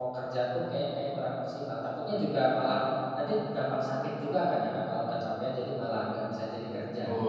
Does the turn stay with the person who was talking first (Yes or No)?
No